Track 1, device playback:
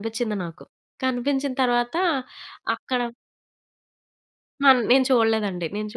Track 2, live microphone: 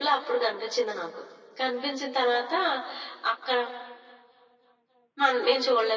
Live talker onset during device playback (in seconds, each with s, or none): none